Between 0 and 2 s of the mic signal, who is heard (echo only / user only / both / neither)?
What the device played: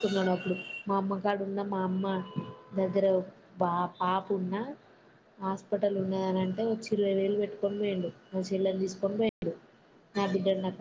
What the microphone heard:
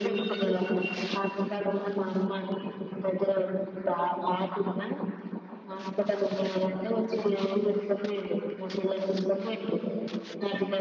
echo only